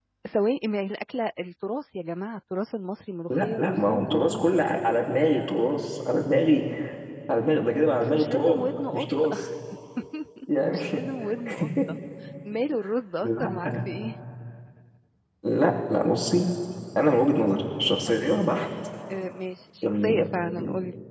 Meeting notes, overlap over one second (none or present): present